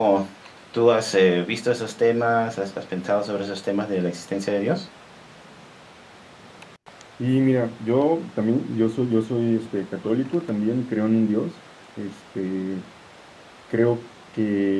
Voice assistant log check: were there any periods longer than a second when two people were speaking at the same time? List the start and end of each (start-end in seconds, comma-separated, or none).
none